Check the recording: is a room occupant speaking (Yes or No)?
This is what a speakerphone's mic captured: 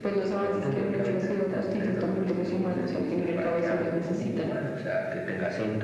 No